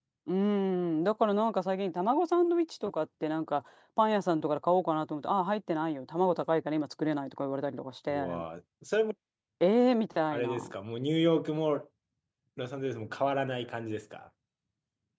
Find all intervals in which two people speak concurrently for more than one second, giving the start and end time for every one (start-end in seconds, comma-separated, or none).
none